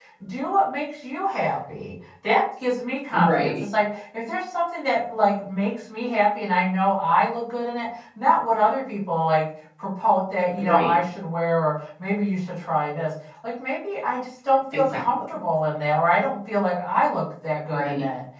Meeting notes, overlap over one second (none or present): none